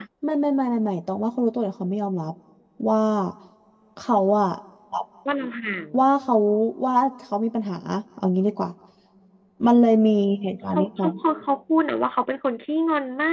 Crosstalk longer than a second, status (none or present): none